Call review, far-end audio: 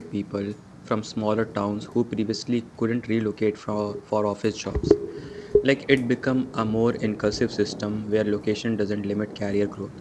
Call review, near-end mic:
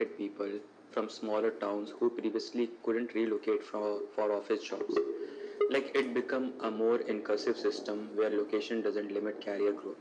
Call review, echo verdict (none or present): present